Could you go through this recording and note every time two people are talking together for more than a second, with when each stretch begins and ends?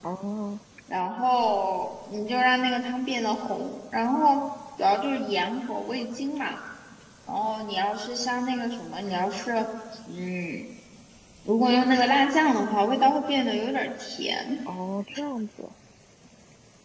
none

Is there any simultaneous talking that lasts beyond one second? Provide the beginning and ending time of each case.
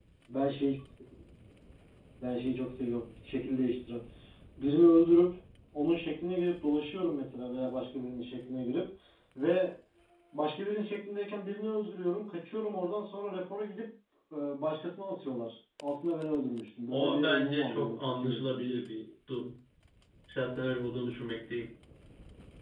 16.9-18.7

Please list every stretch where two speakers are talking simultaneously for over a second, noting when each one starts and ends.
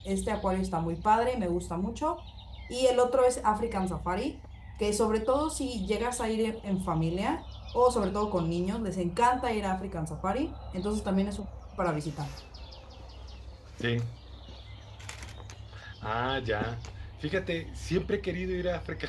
none

